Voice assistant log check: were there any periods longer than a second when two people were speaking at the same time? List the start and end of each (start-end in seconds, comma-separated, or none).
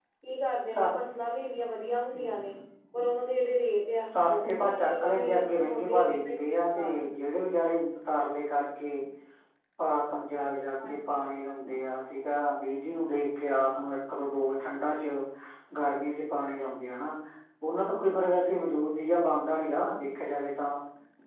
4.1-7.0